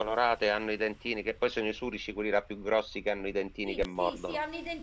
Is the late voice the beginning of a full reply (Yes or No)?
Yes